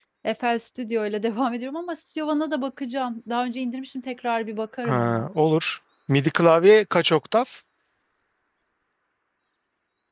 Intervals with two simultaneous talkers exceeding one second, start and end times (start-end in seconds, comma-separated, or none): none